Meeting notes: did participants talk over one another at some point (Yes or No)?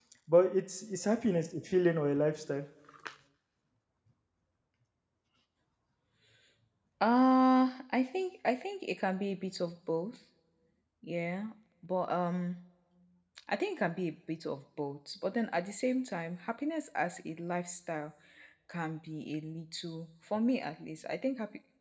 No